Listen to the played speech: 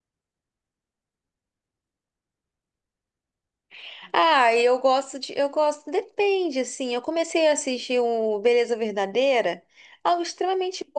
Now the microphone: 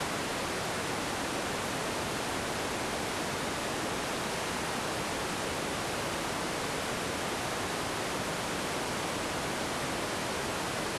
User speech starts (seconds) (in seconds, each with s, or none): none